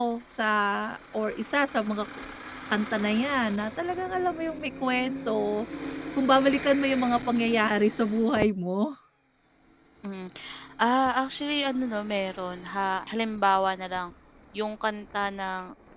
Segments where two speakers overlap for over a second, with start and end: none

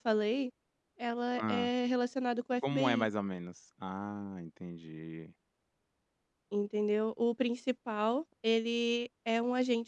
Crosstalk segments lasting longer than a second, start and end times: none

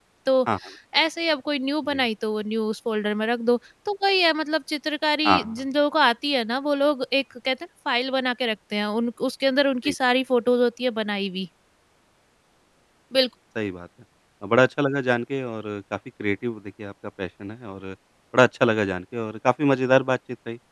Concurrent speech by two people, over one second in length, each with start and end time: none

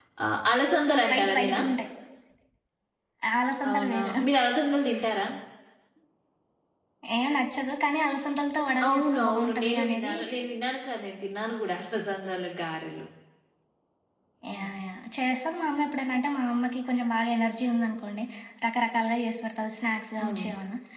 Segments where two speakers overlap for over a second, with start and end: 8.8-10.1

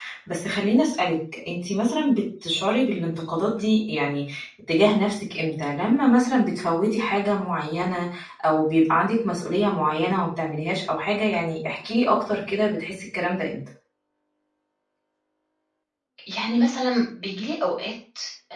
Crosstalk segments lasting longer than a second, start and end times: none

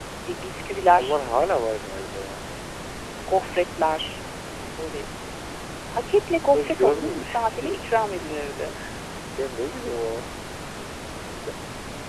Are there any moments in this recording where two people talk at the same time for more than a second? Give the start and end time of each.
6.5-7.9

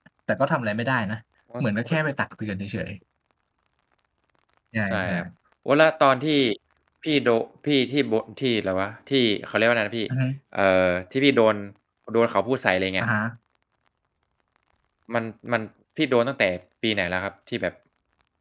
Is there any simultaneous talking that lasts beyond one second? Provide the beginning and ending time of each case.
none

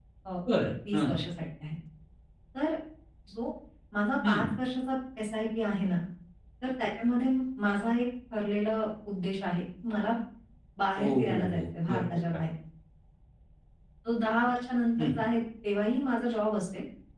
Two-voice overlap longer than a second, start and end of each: 11.0-12.2

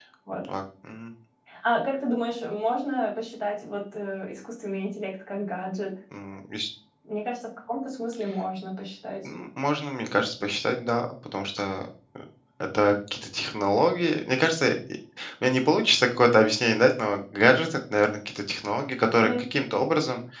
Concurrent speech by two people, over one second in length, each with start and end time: none

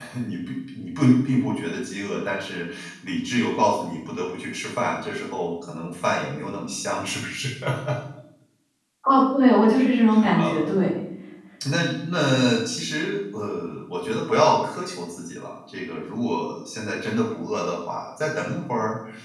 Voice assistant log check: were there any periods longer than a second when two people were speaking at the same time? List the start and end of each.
none

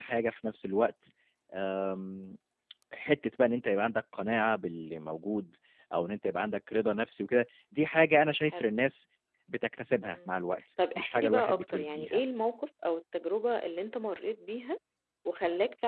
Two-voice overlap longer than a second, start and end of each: 10.9-12.2

